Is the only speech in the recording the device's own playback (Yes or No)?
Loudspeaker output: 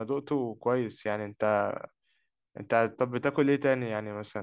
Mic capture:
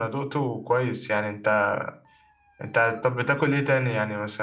Yes